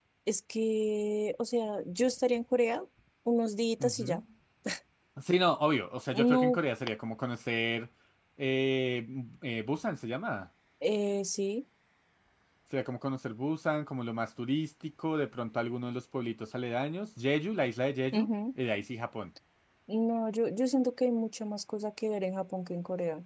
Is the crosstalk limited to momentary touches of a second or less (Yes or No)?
Yes